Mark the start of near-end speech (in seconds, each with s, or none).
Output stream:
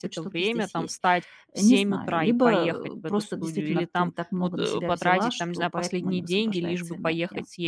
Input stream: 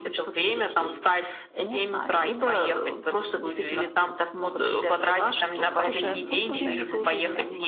5.7 s